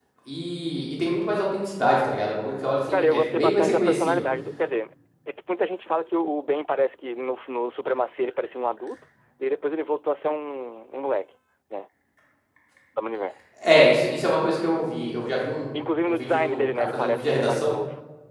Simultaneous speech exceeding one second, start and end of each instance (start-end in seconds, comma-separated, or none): 2.9-4.2, 15.7-17.7